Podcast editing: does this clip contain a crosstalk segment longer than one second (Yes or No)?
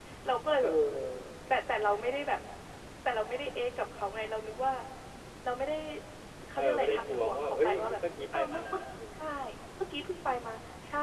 Yes